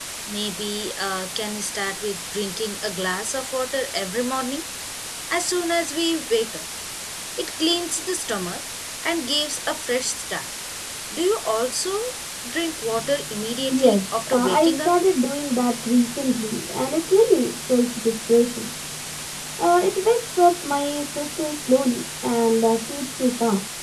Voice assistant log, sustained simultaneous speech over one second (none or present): present